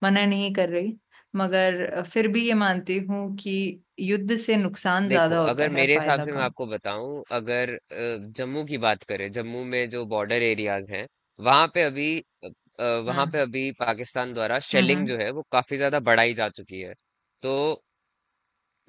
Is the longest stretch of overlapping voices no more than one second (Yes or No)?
No